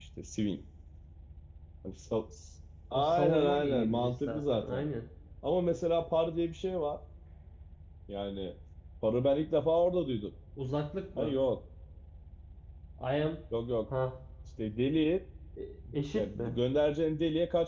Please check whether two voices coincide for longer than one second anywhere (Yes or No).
Yes